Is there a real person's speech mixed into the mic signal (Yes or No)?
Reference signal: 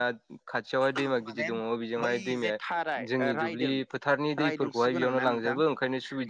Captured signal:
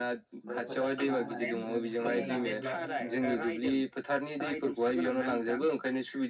Yes